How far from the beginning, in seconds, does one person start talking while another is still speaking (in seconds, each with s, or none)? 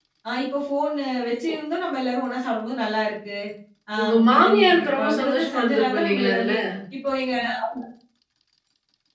4.0 s